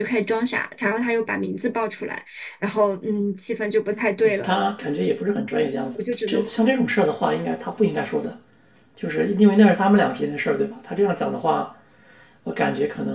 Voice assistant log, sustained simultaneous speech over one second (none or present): none